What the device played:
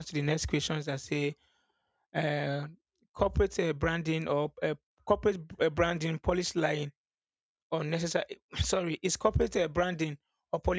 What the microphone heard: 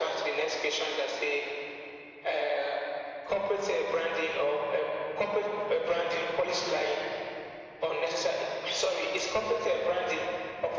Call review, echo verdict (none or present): present